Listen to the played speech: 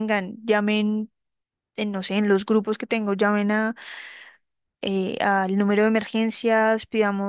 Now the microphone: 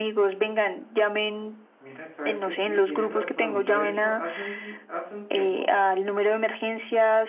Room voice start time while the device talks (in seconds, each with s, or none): 1.8 s